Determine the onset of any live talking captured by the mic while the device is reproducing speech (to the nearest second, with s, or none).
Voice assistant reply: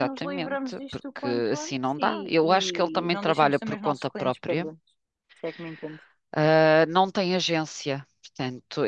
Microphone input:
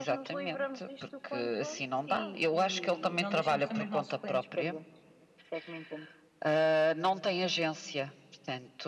none